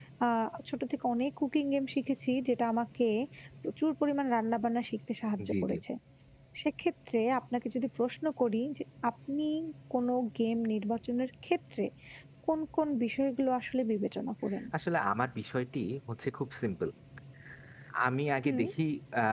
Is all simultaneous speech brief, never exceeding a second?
Yes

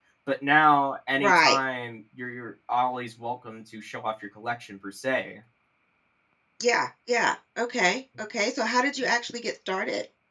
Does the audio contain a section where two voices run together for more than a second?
No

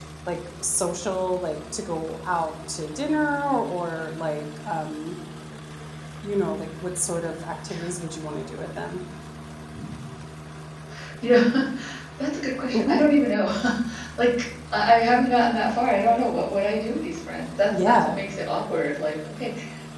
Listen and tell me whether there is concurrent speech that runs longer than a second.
No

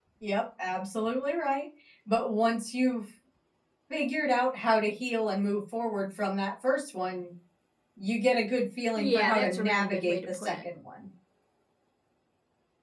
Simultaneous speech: Yes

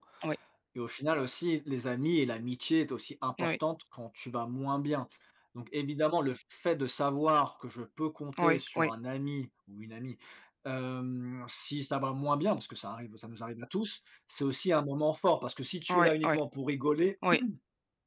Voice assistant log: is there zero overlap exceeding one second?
Yes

